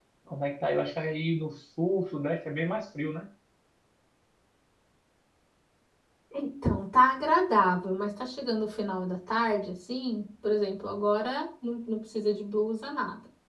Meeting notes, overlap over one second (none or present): none